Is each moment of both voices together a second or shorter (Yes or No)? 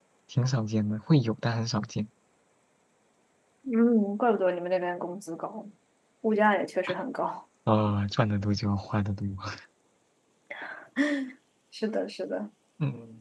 Yes